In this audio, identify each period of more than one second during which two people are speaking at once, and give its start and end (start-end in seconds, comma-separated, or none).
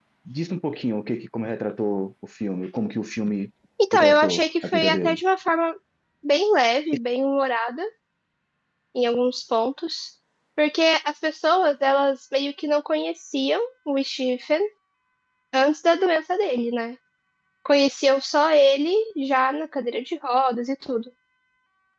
3.9-5.2